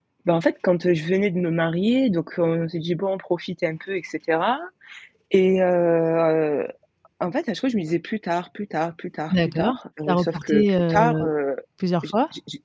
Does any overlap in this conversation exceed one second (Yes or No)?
Yes